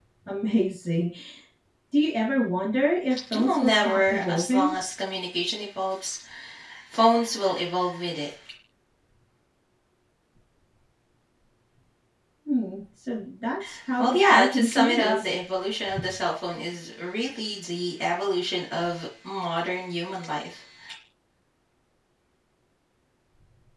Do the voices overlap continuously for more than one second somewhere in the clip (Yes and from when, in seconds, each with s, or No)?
Yes, from 3.3 s